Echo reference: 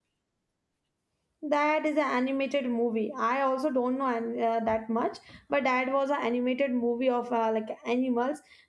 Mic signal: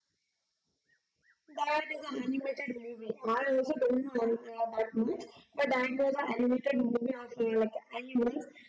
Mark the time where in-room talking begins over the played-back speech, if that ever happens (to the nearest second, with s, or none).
none